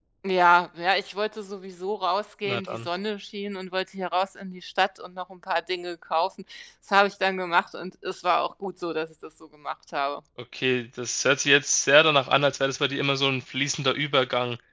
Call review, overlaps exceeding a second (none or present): none